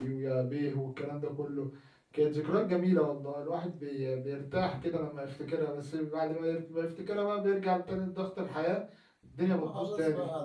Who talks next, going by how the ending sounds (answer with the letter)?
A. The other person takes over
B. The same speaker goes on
A